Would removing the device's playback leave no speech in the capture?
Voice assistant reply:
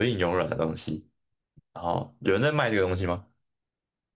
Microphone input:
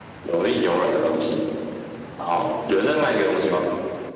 Yes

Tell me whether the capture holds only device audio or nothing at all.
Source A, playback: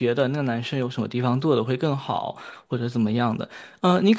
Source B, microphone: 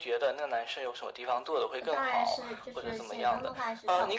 No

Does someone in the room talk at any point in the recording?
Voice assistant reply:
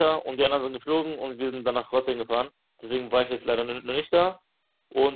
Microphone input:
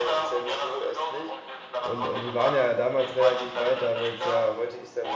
Yes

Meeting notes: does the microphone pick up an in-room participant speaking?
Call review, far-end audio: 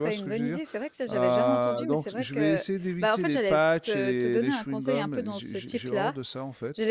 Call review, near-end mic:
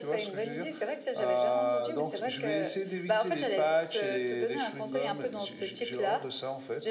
No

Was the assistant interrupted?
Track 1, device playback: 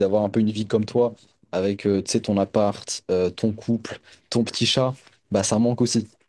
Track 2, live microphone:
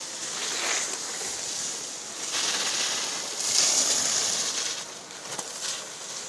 No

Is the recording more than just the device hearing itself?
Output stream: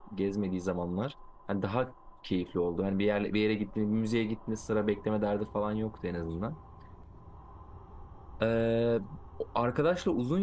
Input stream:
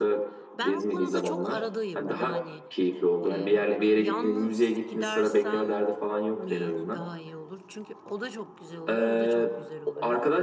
Yes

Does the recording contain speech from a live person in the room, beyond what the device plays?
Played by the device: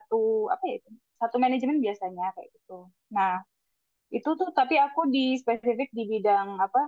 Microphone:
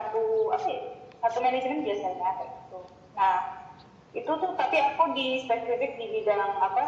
No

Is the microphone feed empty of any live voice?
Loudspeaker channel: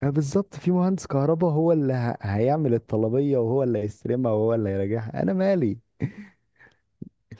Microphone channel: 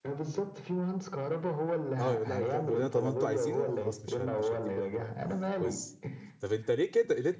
No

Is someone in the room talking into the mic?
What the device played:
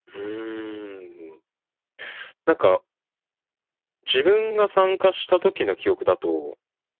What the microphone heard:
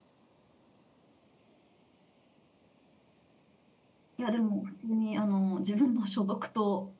Yes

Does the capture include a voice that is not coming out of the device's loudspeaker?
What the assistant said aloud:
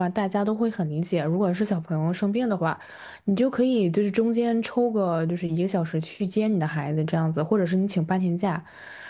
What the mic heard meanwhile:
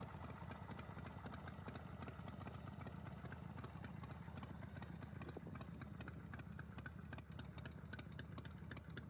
No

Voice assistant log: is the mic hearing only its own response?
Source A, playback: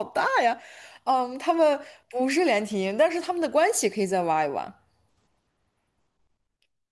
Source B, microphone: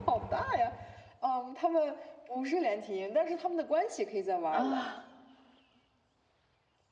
No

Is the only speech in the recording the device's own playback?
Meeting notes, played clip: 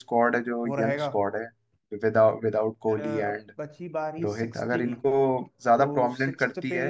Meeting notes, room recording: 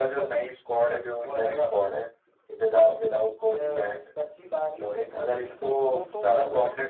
No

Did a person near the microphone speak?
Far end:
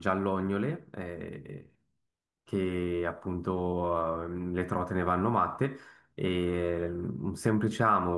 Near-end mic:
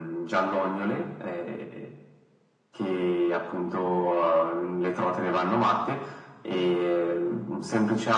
No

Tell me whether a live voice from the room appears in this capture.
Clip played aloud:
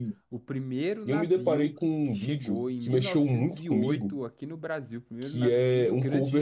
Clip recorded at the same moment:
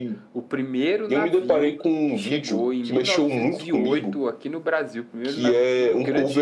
No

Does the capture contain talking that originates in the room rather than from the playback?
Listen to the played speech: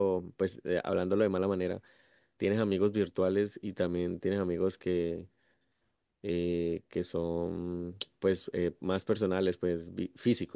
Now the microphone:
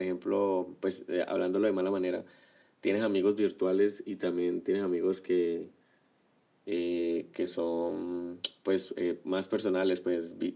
No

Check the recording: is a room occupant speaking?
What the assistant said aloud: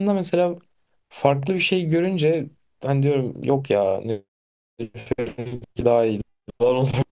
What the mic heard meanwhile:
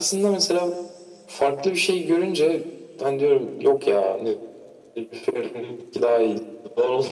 No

